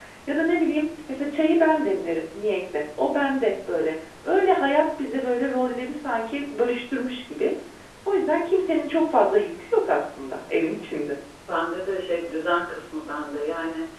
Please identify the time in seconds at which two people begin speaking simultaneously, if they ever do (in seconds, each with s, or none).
none